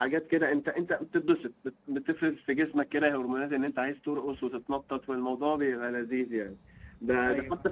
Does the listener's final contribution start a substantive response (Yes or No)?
No